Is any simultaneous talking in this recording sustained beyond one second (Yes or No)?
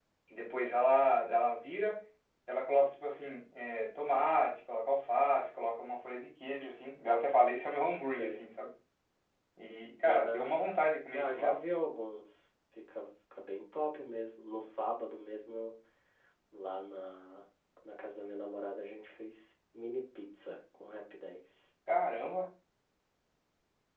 No